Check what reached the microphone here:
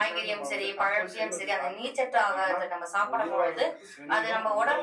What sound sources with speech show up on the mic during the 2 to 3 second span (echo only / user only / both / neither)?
echo only